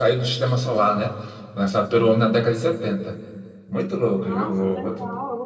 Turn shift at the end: Yes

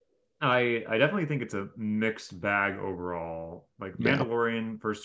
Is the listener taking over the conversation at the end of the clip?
No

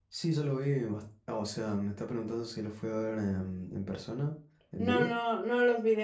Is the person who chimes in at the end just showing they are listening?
No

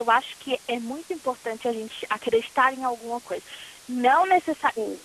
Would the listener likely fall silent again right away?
Yes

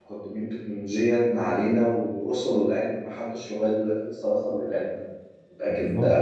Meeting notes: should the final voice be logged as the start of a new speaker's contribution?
Yes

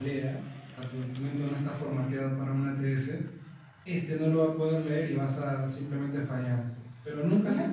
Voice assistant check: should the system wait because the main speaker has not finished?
No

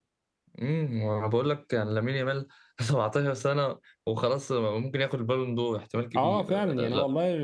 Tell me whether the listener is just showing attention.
No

